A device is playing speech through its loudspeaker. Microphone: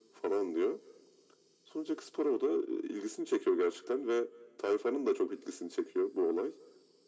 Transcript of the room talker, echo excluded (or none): none